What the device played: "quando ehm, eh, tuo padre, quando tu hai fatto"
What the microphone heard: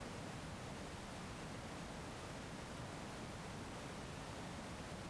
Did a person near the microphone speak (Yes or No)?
No